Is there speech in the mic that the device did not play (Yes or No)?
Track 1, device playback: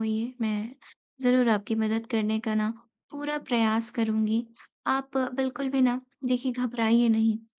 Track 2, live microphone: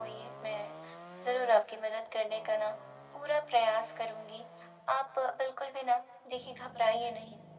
No